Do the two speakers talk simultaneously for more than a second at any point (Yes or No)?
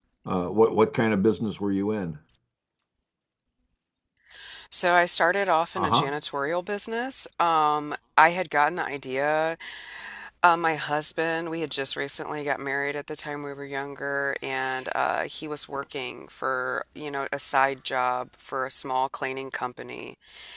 No